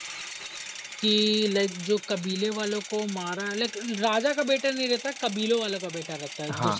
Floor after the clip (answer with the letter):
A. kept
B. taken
B